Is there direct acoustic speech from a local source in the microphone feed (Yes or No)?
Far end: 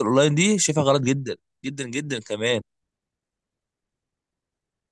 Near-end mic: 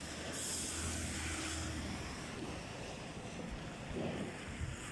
No